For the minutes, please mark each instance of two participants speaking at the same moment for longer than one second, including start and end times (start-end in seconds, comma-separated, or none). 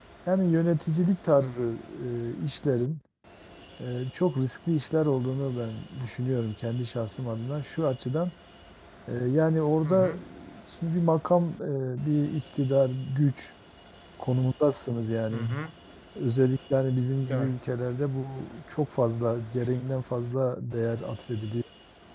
none